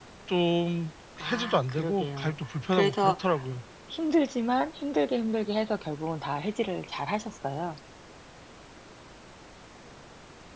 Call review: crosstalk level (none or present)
present